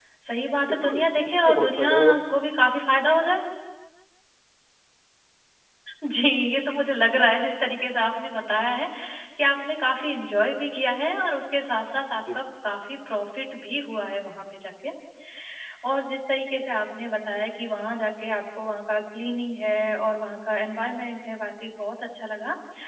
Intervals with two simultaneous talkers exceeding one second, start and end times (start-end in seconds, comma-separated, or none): 0.7-1.9